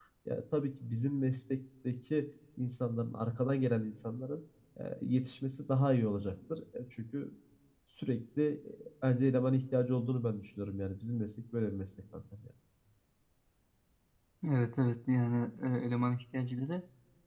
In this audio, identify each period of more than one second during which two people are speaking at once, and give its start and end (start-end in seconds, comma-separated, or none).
none